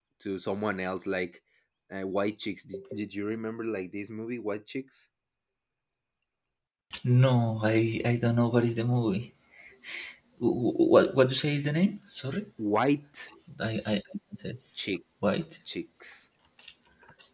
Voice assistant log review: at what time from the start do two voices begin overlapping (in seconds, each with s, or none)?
none